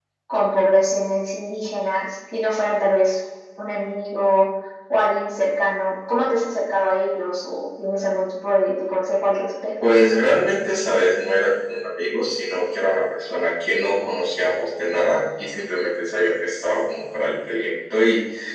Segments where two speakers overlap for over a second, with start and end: none

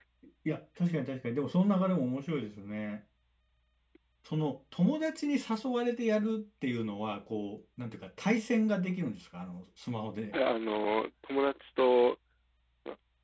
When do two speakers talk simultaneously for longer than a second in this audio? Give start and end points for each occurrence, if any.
none

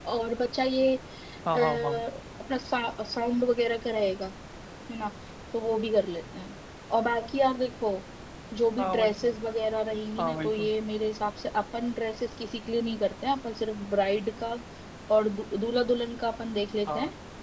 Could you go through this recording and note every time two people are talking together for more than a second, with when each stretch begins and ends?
none

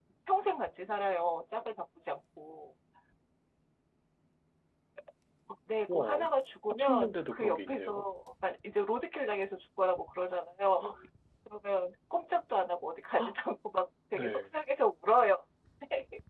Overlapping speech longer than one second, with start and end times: 6.7-8.1

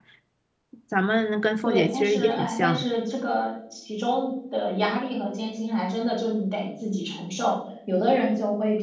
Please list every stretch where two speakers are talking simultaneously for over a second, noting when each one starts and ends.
1.6-2.9

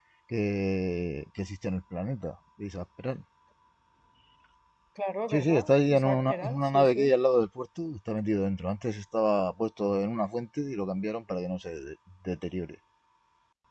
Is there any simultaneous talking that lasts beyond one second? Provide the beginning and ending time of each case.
5.3-7.1

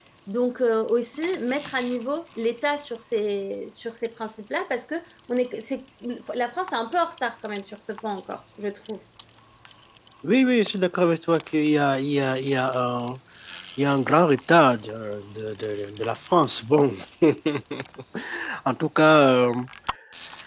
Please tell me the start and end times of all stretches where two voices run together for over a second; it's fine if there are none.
none

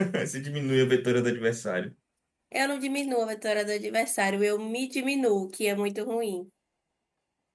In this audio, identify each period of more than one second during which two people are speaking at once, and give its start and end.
none

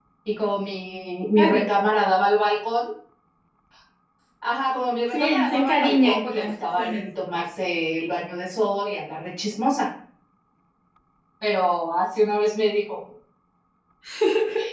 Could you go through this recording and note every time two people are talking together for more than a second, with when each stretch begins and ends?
5.1-7.0

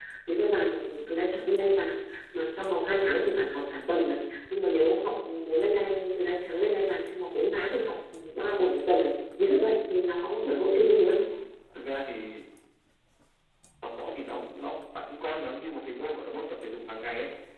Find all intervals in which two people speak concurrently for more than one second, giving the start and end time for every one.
none

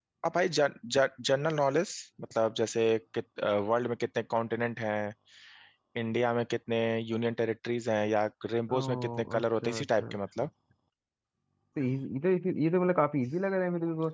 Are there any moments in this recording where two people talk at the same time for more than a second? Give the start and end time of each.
8.7-10.2

